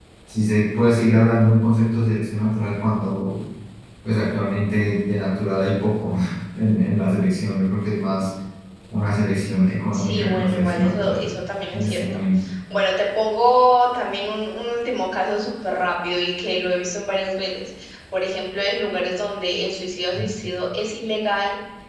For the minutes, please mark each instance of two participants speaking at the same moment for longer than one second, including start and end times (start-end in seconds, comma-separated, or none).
9.9-11.2